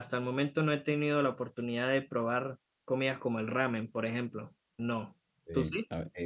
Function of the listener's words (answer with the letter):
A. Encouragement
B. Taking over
B